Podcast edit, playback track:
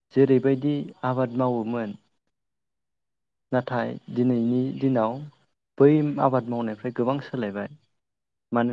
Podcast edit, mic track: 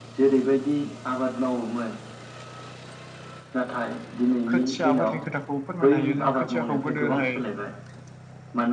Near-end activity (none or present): present